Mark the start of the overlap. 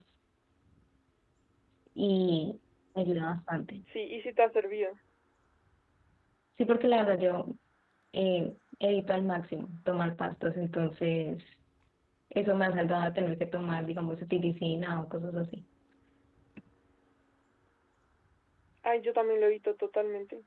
none

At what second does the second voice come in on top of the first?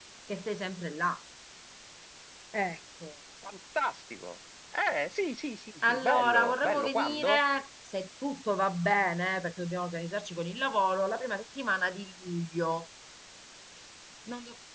5.8 s

